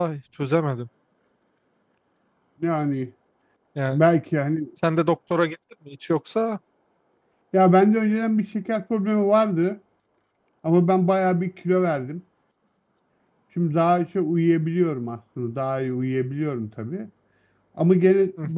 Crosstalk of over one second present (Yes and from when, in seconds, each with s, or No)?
No